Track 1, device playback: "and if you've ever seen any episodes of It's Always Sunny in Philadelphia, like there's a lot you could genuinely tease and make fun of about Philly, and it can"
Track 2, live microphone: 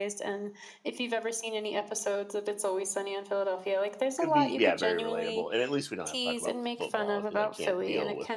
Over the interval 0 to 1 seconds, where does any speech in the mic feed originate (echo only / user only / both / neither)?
echo only